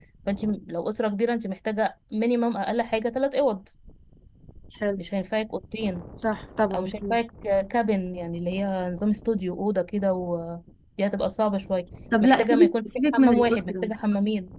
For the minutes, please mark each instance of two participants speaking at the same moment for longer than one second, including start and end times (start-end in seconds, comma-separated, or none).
12.2-13.9